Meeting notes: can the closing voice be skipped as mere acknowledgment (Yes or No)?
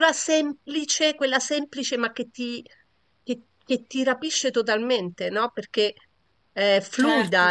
Yes